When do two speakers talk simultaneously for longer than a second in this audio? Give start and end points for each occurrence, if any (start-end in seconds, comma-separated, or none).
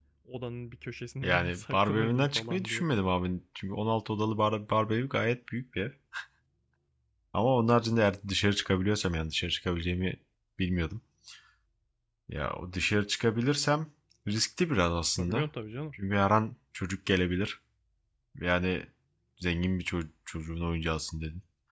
1.2-2.9